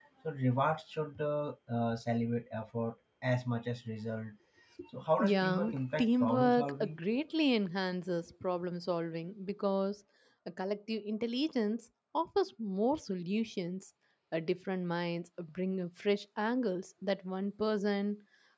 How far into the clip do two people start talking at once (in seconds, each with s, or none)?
5.2 s